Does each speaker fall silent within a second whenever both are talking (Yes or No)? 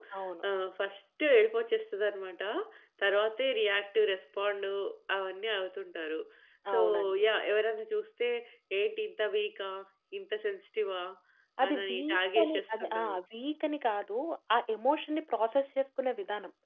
No